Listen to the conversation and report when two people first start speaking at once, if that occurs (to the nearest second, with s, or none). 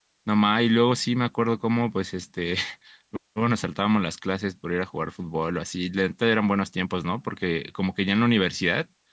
none